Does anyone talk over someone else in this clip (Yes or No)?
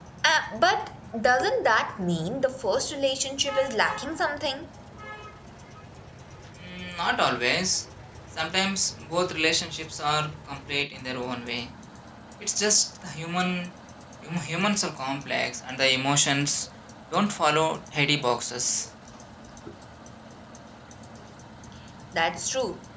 No